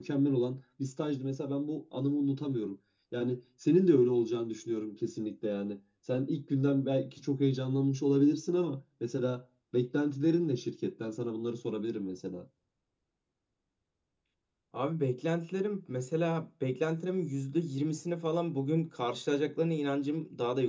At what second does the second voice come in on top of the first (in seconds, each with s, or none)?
none